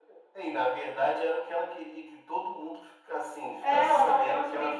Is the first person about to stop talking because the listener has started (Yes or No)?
Yes